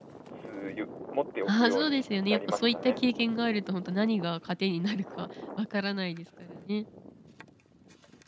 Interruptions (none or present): present